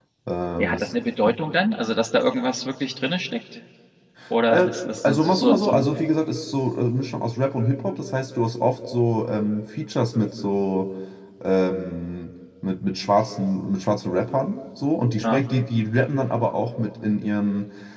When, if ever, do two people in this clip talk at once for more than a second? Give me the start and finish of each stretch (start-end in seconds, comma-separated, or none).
4.5-5.9